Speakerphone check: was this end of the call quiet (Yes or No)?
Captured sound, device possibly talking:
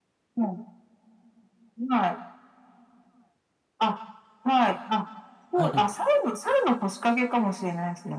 No